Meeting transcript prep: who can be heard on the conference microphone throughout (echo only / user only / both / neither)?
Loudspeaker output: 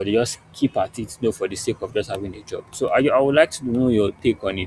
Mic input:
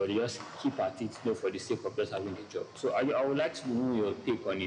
echo only